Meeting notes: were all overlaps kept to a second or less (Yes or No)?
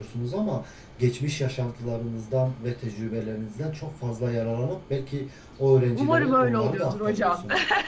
No